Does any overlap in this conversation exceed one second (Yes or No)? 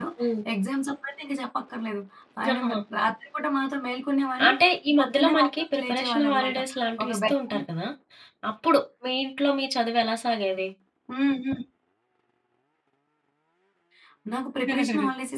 Yes